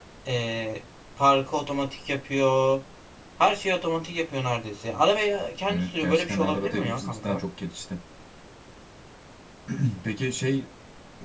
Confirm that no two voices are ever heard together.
No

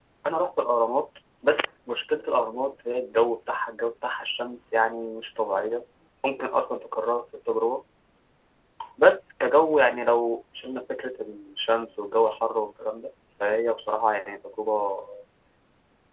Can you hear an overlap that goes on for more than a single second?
No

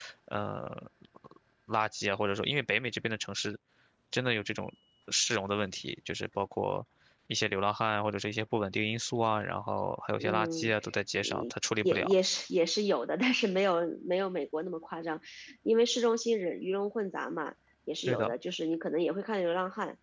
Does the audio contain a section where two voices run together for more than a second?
No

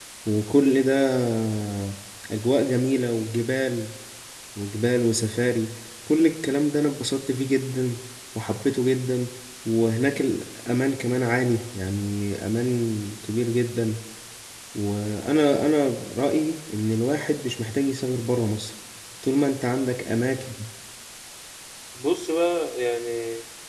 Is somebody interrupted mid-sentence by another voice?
No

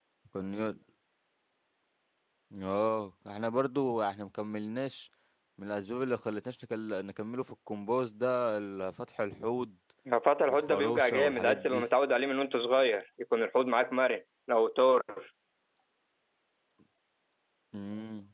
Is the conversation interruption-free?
No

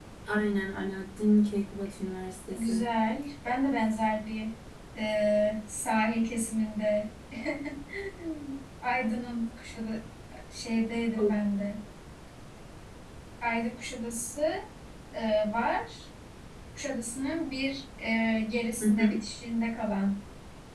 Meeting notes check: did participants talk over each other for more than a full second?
No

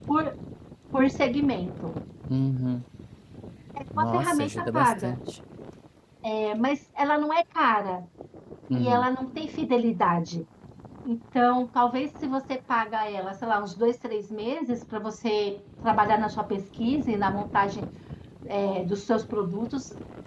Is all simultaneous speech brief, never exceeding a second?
No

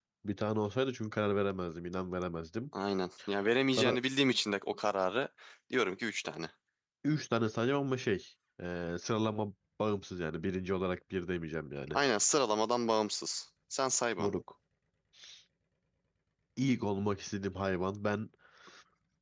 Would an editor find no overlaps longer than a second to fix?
Yes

